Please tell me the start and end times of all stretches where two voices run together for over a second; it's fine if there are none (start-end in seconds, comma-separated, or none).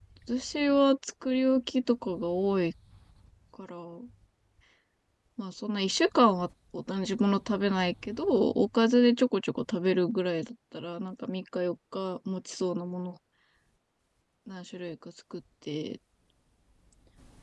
none